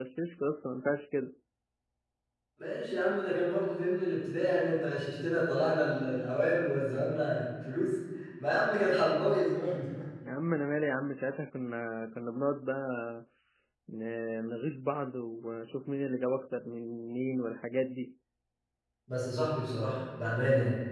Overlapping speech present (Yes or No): No